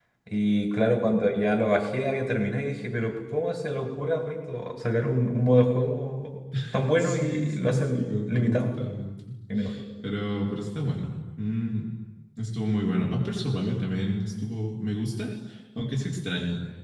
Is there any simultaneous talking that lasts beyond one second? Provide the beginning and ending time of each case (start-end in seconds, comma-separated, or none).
7.0-8.7